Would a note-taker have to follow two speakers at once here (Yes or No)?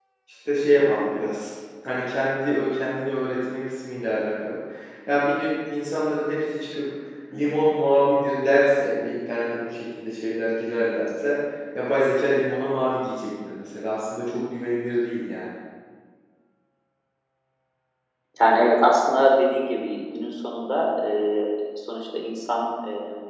No